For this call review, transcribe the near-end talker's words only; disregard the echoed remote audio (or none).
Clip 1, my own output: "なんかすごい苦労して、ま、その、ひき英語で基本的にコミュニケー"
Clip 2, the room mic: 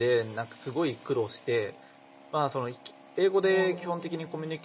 もう